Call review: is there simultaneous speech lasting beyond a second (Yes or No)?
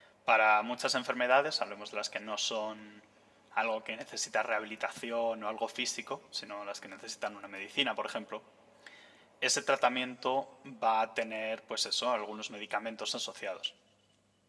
No